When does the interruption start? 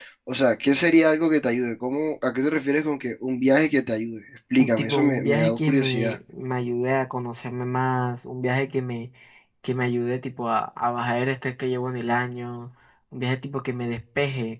4.6 s

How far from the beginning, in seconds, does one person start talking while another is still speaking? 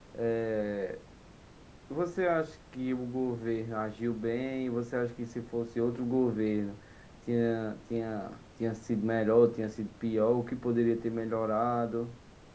none

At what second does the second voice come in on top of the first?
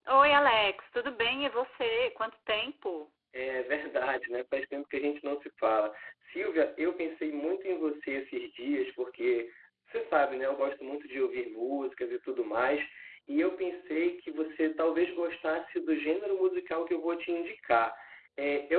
none

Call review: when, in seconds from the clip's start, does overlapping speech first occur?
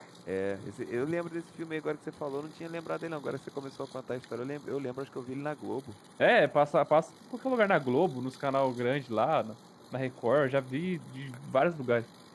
none

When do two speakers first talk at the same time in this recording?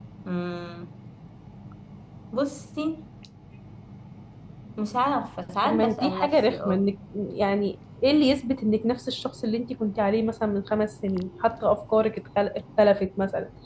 5.6 s

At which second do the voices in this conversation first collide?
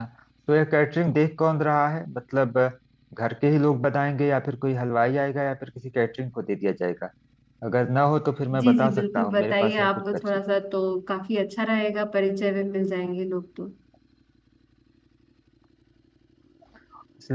8.5 s

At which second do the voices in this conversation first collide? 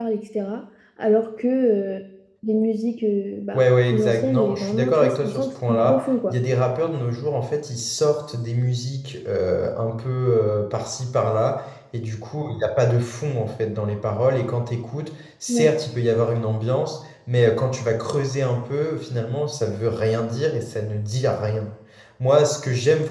3.5 s

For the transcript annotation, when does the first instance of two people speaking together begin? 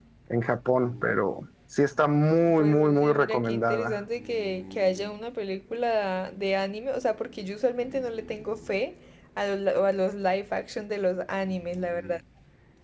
2.5 s

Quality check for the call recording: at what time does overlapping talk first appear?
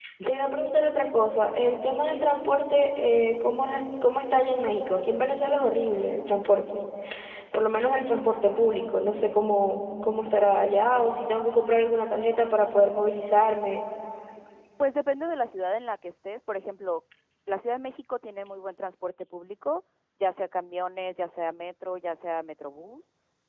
none

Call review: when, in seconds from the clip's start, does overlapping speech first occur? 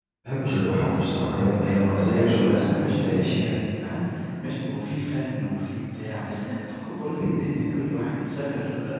2.1 s

